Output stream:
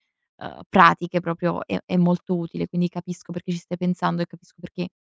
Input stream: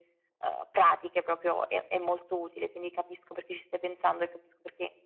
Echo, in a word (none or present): present